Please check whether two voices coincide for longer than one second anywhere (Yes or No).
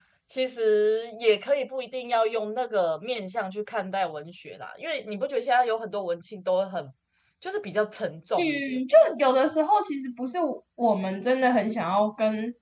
No